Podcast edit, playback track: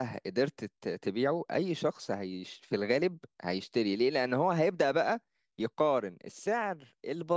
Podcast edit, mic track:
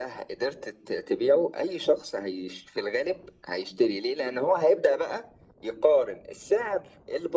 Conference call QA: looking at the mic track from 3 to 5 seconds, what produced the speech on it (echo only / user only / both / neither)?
echo only